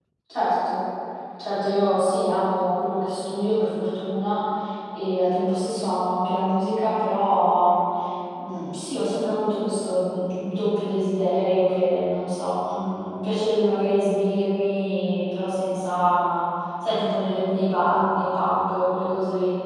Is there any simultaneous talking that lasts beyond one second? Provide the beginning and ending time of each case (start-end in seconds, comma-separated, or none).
none